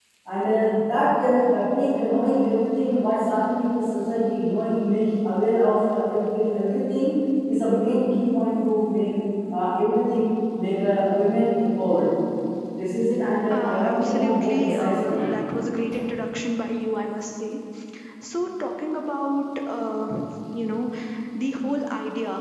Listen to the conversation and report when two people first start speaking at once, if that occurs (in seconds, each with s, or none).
13.5 s